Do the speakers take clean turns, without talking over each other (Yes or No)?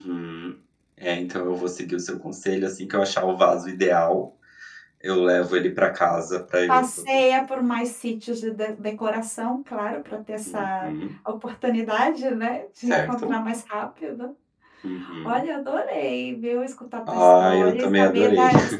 No